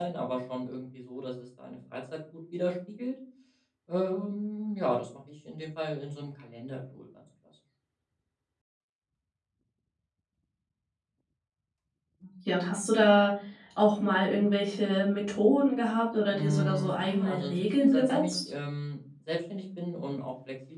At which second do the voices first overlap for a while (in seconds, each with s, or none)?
16.3 s